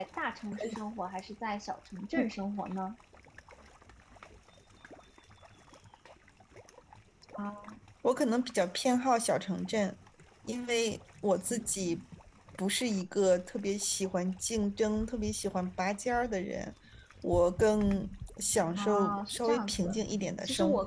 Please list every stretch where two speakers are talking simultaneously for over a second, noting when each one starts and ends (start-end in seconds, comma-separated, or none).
18.8-20.0